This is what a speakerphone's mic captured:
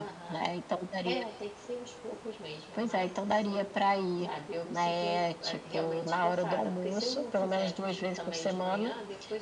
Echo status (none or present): present